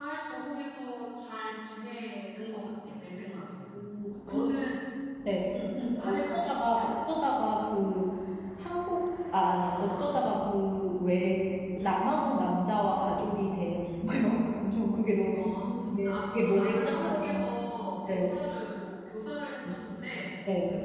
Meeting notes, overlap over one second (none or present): present